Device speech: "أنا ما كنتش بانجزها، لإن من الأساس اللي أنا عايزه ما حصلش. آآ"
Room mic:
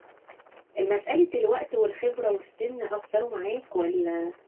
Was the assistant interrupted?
Yes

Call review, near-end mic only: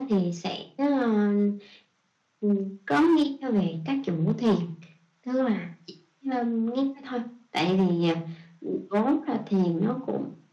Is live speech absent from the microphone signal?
Yes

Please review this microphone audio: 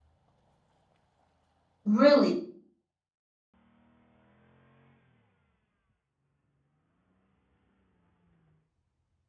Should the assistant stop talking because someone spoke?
Yes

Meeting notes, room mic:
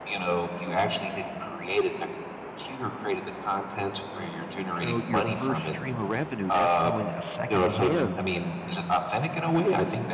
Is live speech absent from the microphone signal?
No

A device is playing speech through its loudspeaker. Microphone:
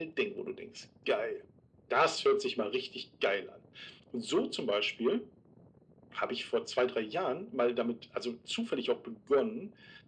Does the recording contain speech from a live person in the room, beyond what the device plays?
No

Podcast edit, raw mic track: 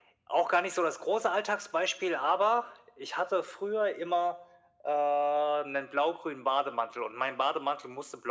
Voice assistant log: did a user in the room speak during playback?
No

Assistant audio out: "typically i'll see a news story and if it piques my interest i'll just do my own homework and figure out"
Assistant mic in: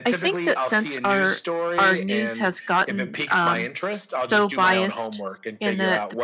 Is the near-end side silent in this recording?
No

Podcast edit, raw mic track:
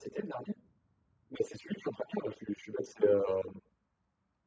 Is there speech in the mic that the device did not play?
No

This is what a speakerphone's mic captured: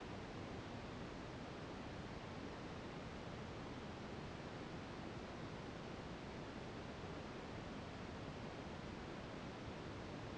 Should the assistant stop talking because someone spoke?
No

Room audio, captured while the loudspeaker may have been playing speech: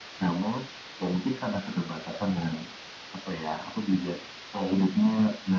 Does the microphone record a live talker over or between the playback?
No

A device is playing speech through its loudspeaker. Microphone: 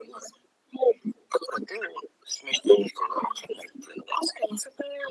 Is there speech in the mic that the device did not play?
No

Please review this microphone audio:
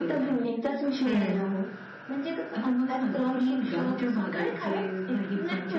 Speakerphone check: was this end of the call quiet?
No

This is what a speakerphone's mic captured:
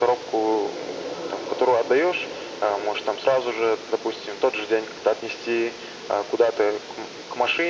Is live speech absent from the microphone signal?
Yes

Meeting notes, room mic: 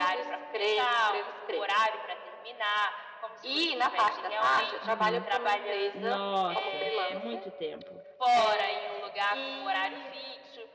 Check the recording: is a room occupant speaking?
Yes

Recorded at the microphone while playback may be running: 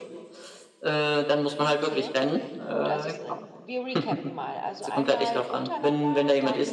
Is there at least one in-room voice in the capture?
Yes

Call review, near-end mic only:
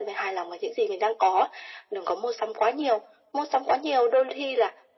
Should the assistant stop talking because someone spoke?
No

